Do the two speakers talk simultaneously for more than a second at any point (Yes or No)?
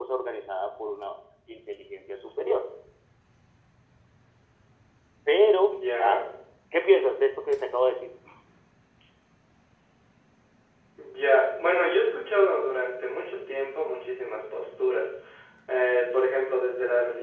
No